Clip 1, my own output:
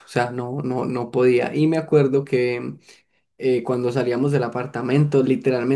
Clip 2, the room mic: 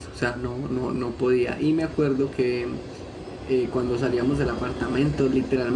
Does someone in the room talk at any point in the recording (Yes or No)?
No